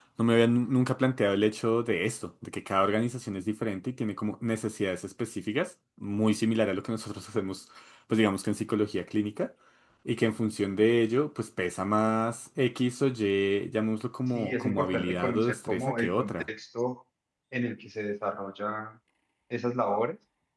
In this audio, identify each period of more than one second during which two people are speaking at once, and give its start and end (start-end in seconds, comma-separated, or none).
14.3-16.5